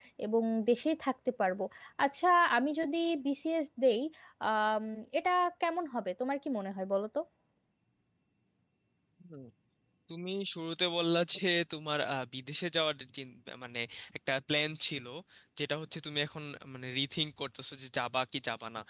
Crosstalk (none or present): none